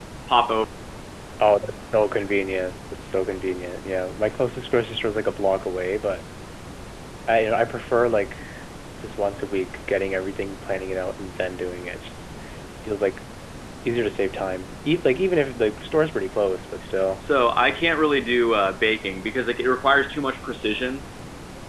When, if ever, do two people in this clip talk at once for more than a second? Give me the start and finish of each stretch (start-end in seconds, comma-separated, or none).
none